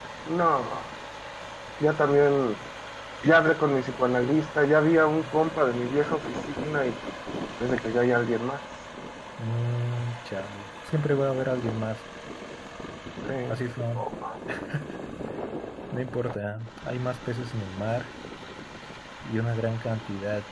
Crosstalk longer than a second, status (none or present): none